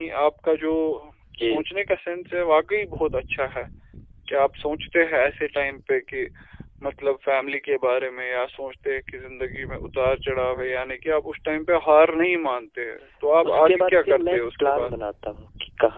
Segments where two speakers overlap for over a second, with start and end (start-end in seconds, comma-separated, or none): 13.5-14.9